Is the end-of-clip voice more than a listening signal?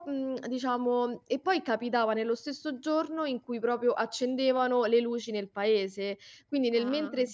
No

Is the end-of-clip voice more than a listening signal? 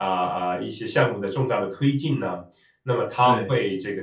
No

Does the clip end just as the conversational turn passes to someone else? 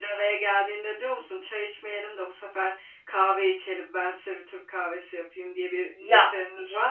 Yes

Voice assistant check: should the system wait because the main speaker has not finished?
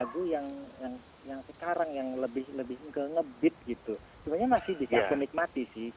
Yes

